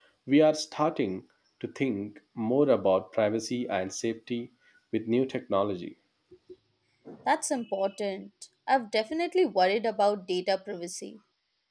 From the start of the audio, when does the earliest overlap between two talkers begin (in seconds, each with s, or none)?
none